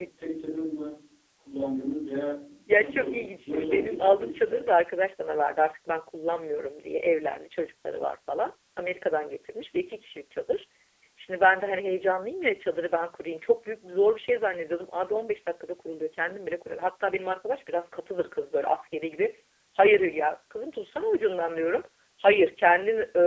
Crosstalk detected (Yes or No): Yes